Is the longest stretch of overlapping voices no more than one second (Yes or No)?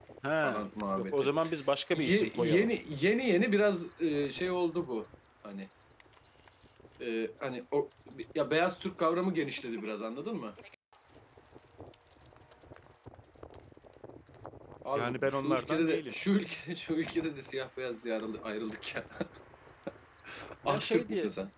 No